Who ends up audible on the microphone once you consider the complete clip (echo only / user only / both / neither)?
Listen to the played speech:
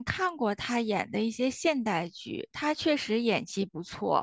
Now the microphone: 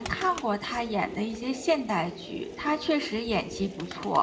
echo only